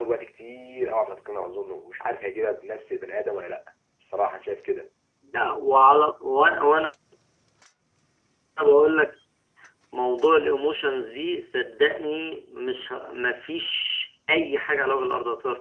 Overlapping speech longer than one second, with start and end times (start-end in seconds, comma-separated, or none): none